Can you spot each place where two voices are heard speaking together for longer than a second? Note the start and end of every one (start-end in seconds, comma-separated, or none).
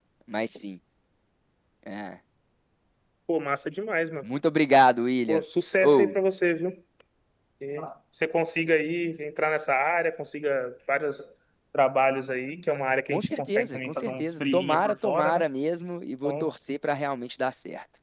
13.1-15.4